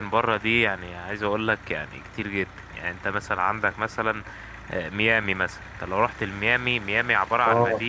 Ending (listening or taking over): listening